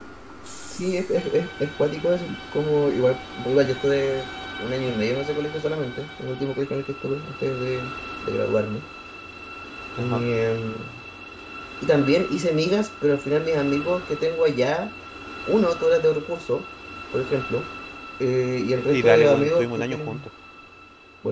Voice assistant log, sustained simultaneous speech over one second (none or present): present